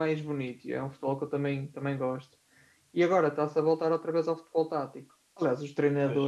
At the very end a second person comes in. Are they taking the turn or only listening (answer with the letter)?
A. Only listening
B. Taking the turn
A